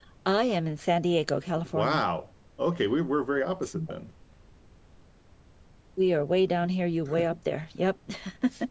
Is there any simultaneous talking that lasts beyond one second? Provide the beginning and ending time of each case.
none

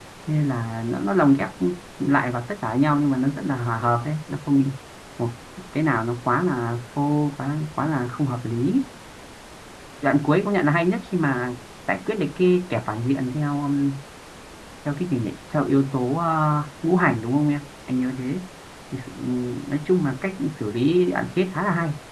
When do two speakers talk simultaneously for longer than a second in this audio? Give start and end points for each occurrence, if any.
none

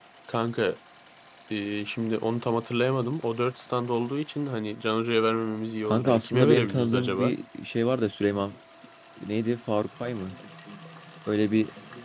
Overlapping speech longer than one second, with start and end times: 5.8-7.3

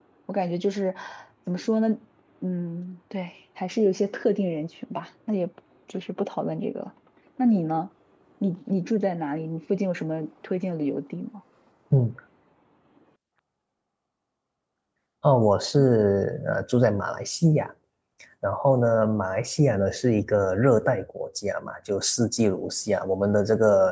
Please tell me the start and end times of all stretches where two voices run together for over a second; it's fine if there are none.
none

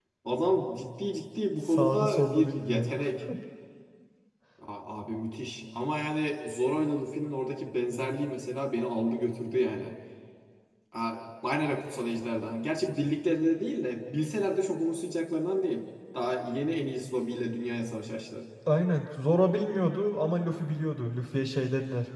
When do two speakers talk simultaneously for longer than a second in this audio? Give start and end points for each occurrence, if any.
1.6-2.9

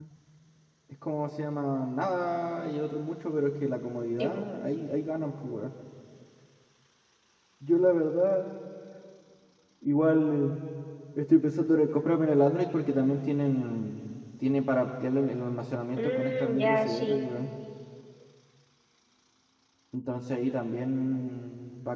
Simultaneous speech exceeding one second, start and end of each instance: 16.0-17.2

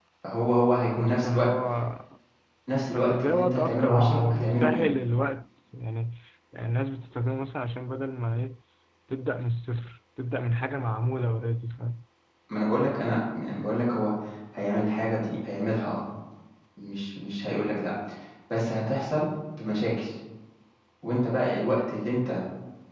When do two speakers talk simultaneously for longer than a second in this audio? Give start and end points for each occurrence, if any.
2.9-4.8

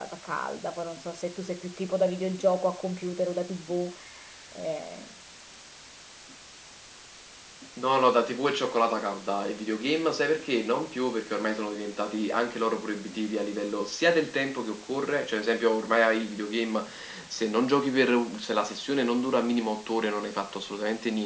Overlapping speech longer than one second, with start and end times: none

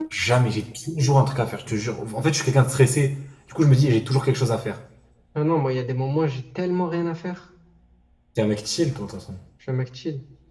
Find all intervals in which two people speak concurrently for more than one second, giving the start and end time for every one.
none

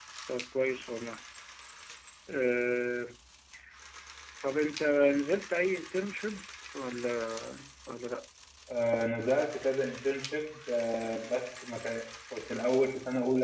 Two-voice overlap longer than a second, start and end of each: none

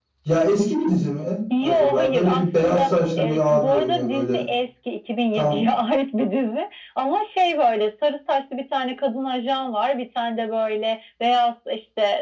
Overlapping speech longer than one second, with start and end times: 1.6-4.4

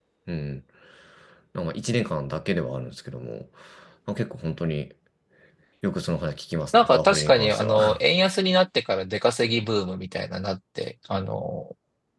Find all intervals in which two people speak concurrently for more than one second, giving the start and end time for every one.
6.7-8.0

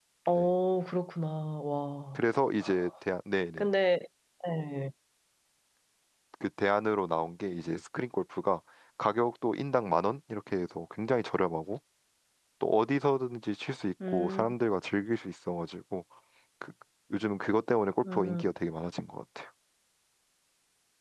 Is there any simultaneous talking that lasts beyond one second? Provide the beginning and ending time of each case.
none

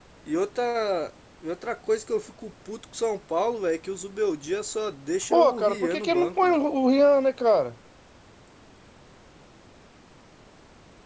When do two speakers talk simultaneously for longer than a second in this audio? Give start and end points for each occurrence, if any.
5.3-6.6

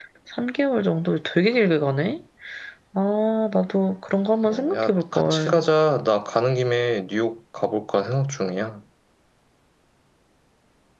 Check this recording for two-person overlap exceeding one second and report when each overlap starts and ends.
4.5-5.7

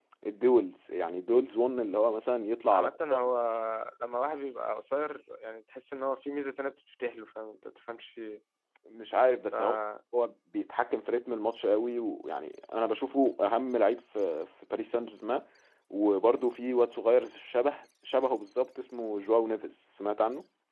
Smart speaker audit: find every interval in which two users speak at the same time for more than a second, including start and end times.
none

